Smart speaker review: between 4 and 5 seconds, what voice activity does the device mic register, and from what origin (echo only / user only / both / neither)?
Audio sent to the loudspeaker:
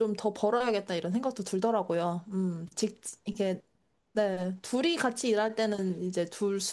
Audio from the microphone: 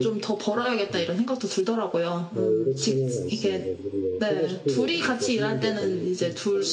both